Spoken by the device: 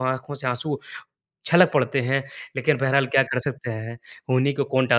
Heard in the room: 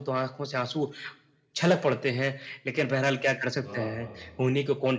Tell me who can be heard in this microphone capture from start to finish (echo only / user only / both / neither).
both